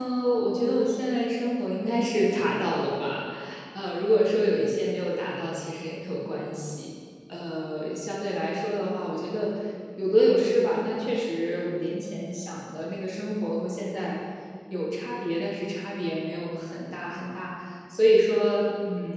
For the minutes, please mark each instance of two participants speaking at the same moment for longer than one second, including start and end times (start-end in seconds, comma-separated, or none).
none